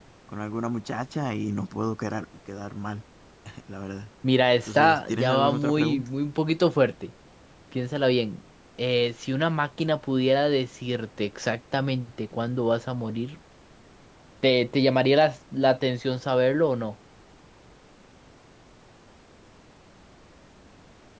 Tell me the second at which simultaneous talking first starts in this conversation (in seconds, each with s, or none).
4.7 s